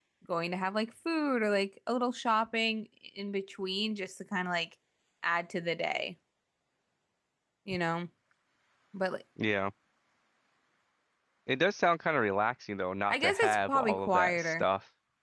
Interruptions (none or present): present